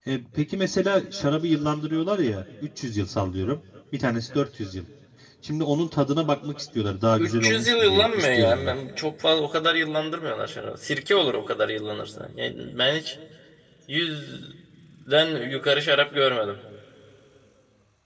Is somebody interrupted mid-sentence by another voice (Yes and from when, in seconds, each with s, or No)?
Yes, from 7.2 s